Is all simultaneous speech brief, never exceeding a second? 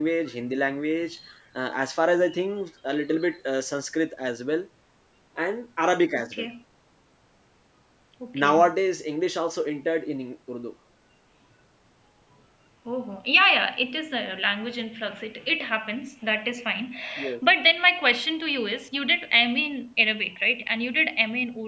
Yes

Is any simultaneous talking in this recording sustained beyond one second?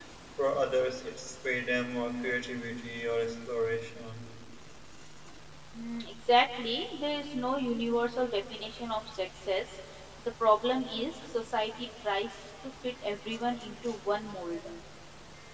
No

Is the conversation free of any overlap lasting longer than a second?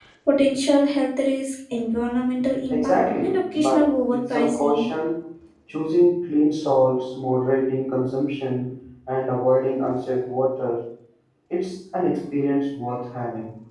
No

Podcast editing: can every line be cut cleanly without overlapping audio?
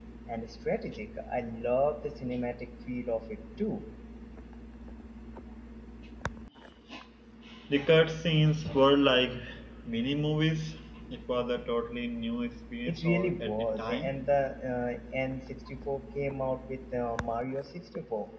No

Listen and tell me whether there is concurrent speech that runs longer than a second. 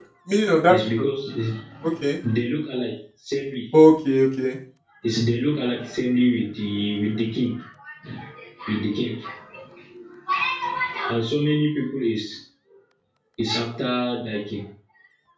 No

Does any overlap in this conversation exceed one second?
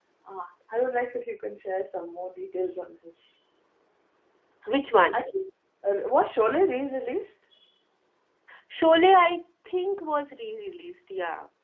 No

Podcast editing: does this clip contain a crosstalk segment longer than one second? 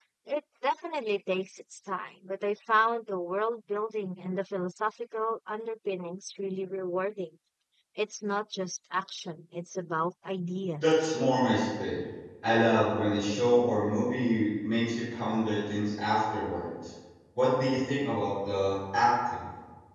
No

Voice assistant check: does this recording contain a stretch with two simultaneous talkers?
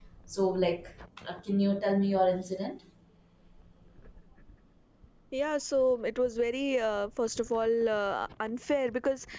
No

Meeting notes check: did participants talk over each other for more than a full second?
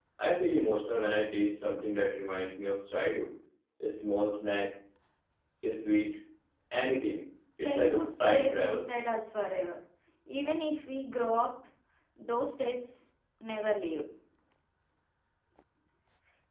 Yes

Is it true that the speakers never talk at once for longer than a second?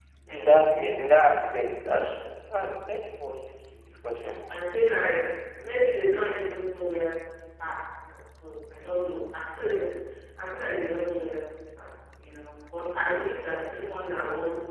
Yes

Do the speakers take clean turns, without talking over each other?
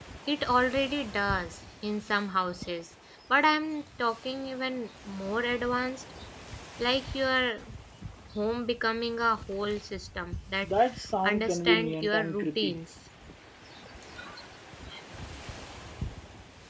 No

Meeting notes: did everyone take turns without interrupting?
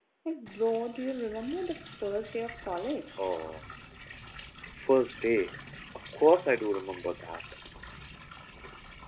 Yes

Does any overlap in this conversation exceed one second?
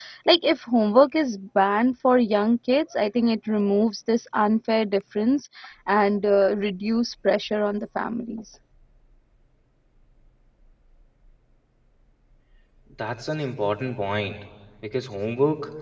No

